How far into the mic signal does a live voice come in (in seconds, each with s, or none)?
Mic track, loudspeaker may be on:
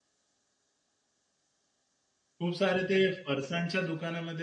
2.4 s